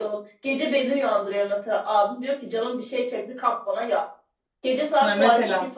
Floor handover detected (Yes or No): No